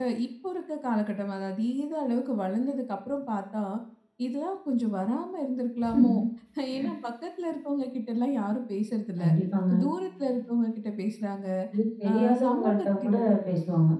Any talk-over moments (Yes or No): Yes